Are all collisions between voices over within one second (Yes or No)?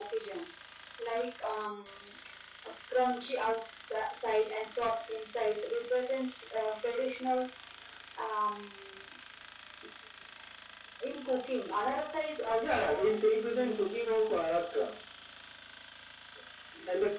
No